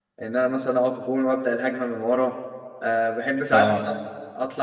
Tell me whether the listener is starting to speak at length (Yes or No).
No